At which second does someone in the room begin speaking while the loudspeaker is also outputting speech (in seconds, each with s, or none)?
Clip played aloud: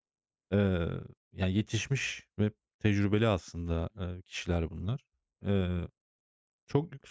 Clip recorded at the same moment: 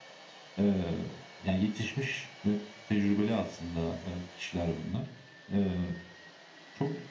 none